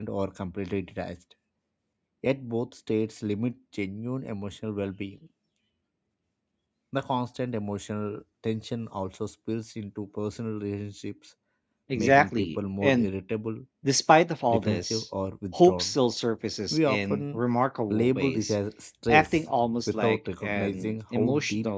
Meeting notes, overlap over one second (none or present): present